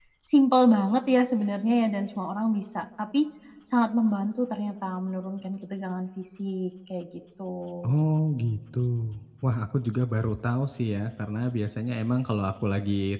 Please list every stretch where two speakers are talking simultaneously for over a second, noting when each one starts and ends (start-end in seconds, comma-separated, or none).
none